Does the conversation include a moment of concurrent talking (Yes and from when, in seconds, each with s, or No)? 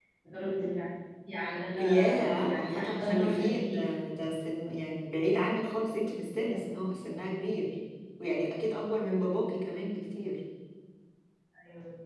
Yes, from 1.8 s